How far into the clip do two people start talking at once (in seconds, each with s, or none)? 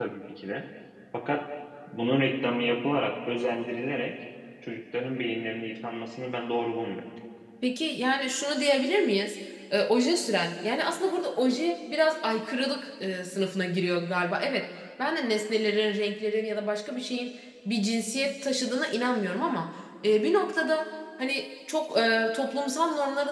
none